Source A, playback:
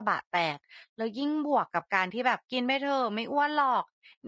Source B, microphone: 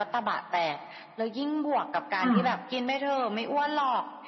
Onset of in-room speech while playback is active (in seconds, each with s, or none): 2.2 s